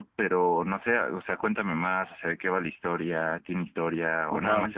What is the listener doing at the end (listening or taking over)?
listening